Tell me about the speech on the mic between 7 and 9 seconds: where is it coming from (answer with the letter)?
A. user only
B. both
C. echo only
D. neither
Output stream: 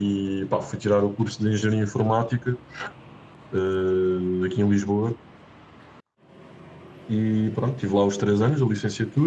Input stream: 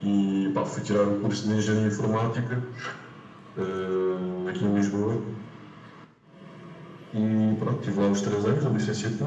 C